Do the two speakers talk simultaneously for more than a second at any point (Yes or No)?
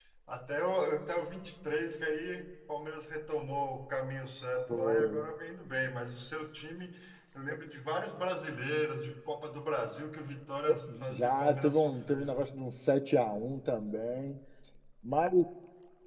Yes